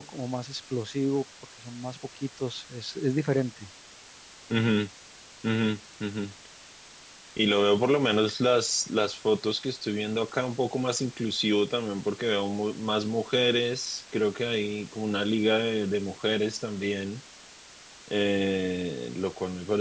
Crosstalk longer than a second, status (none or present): none